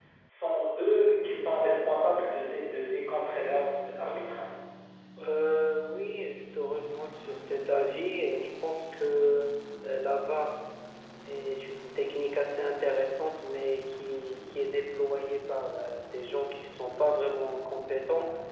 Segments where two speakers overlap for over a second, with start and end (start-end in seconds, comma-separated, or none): none